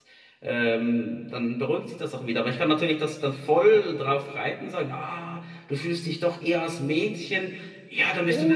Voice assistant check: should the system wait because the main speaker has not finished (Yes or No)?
No